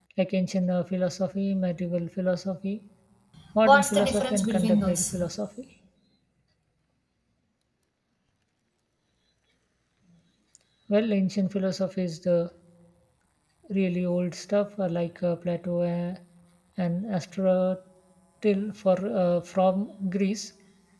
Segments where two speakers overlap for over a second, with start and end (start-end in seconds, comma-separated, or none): 3.6-5.2